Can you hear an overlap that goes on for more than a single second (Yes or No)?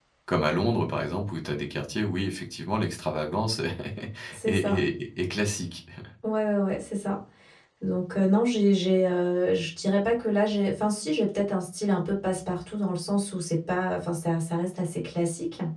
No